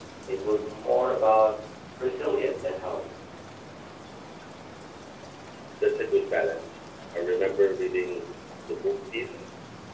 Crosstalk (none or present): none